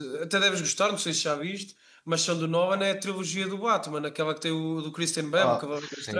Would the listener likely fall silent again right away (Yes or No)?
No